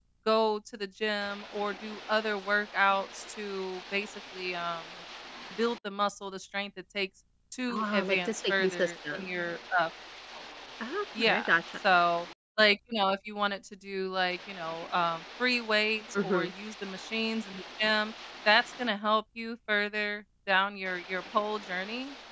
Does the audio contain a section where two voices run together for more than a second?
Yes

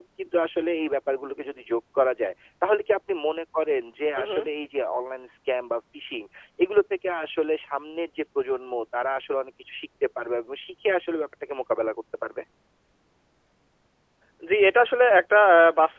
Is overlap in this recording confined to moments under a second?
Yes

